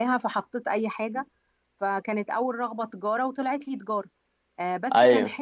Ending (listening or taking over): listening